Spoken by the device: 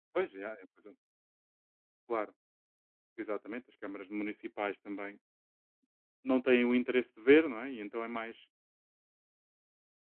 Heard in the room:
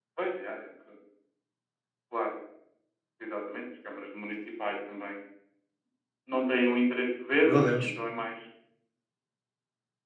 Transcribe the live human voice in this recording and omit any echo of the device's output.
meu Deus,

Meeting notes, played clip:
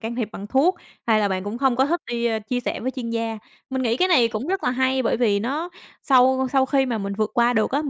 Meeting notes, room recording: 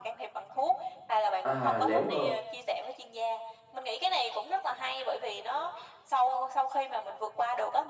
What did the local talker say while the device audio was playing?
À, nếu mà

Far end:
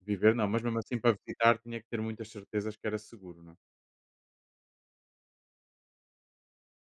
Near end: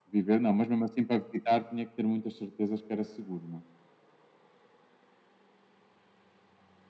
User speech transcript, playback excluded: none

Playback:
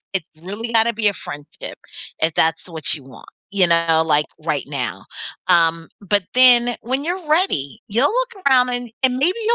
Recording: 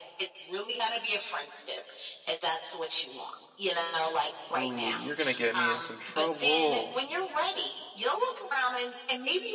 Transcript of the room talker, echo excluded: Ooh, you're gonna get me in some trouble.

